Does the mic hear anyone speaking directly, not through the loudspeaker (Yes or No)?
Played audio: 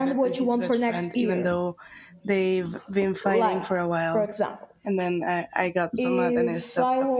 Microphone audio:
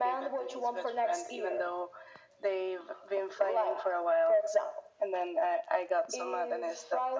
No